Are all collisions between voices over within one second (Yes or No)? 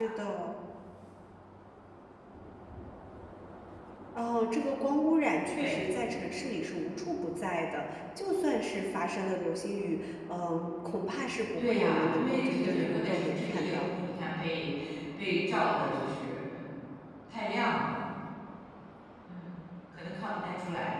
No